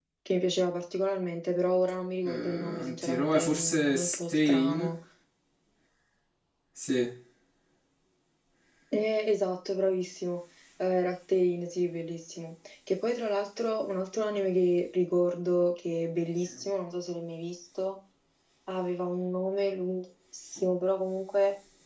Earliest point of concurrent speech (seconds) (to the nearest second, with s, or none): 2 s